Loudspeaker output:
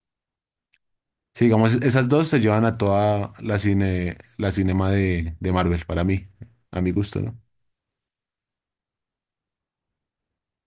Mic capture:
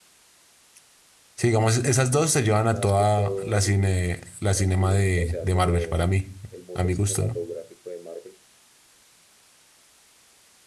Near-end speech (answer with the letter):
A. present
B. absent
A